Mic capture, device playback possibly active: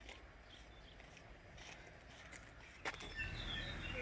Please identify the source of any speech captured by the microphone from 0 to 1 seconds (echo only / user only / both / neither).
neither